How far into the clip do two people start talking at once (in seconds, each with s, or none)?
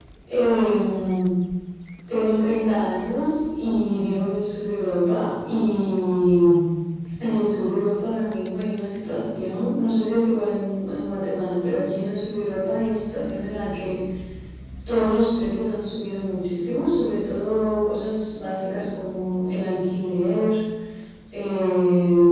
none